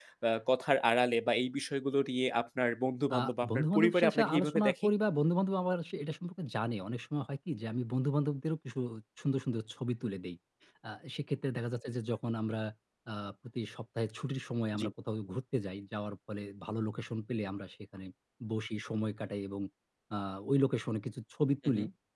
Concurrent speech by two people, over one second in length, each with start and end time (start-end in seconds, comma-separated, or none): 3.2-4.9